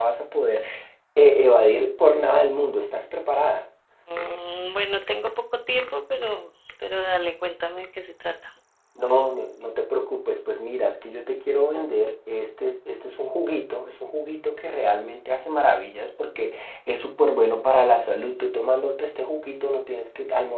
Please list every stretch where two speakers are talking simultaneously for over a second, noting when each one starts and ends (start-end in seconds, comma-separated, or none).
none